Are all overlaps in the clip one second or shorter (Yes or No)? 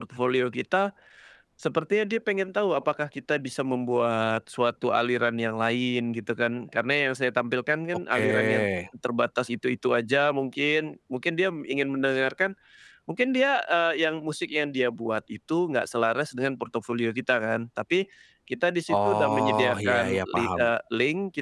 No